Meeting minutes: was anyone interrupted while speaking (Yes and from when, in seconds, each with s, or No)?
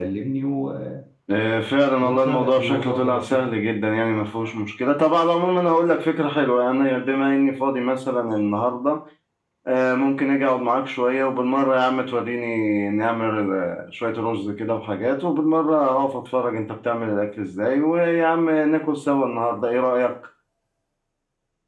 Yes, from 2.0 s